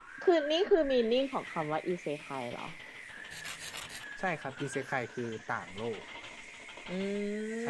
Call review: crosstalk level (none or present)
none